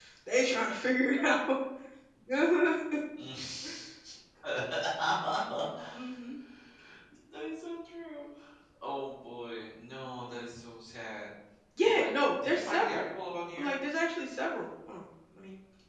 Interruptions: present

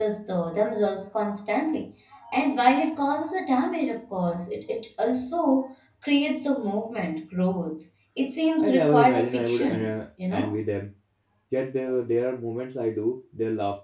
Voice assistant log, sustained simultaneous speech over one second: present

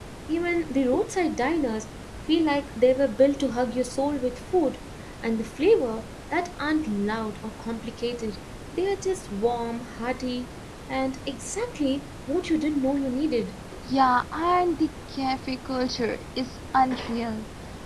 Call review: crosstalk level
none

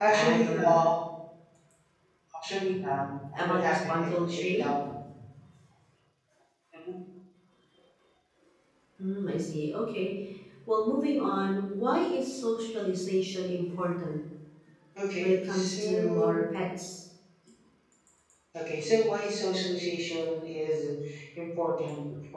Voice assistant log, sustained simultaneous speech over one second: present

